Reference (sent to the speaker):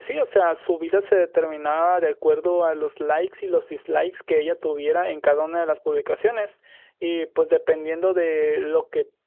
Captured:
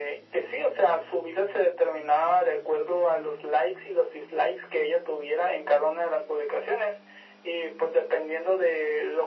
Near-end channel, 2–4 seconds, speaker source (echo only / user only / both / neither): echo only